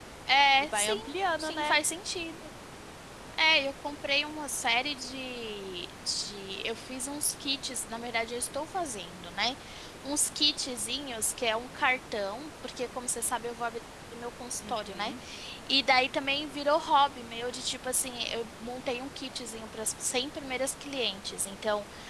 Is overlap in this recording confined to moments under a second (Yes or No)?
Yes